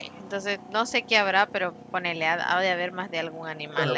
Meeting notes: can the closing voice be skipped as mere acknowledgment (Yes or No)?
No